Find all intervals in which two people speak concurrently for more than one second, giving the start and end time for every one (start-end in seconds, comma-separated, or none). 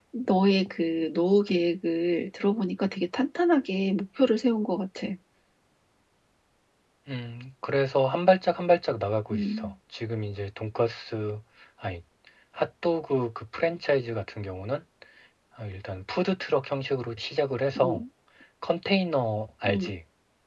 none